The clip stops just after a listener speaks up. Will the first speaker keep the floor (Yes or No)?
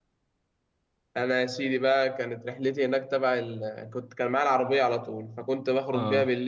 Yes